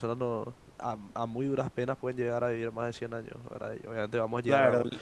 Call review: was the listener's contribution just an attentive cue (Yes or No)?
No